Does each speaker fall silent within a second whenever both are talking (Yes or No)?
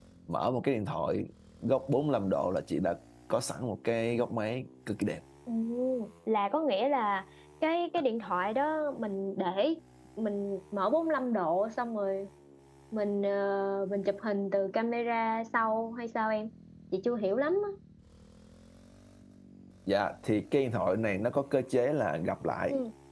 Yes